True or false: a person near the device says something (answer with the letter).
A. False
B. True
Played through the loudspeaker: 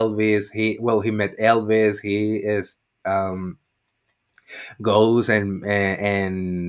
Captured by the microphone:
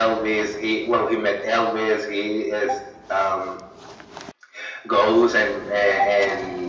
A